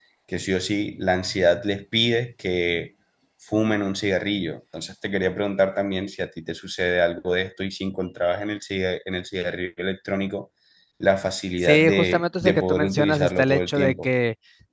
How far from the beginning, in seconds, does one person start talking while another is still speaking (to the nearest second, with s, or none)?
12 s